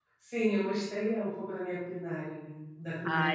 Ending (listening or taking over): taking over